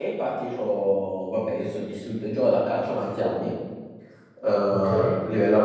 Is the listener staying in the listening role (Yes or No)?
Yes